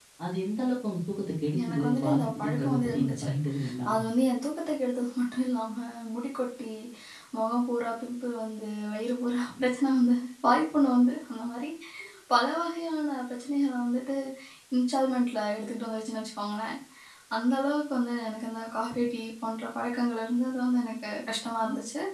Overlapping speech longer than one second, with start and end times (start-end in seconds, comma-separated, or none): 1.7-3.3